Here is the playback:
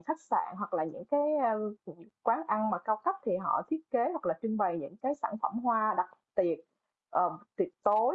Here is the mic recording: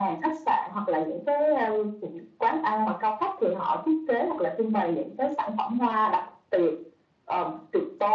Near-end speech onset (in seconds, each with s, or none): none